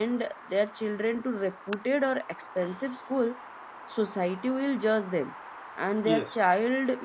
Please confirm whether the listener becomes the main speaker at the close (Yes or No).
No